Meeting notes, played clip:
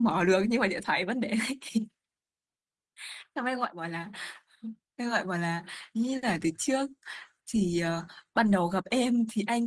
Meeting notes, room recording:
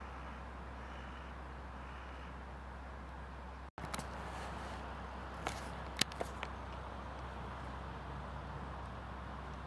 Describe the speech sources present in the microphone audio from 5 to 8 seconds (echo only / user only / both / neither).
neither